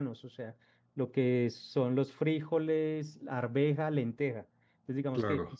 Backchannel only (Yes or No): Yes